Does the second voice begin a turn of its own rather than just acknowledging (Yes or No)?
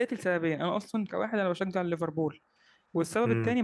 No